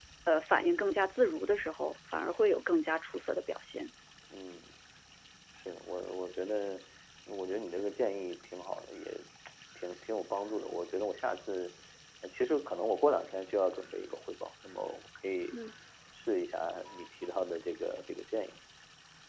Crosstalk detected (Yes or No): No